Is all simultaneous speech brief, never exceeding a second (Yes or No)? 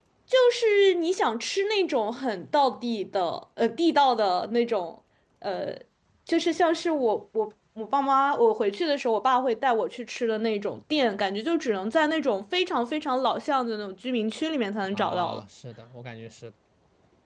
Yes